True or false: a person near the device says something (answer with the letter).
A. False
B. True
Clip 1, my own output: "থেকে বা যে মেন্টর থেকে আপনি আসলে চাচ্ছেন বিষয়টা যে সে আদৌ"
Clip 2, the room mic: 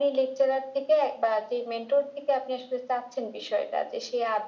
A